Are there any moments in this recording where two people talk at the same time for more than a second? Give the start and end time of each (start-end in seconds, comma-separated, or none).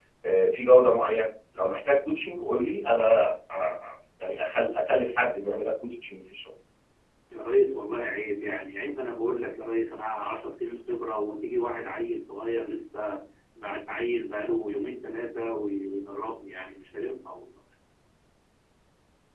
none